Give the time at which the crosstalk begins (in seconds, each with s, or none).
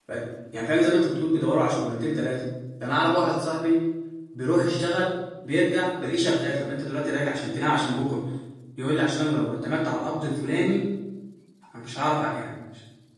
none